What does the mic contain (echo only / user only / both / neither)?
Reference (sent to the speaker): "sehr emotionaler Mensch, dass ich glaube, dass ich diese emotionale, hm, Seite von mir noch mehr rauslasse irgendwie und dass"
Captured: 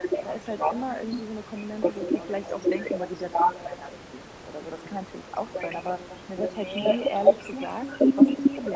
both